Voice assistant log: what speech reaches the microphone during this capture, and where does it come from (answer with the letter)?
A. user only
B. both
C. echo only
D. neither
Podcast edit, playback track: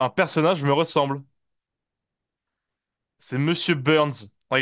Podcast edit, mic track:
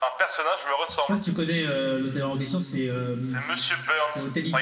B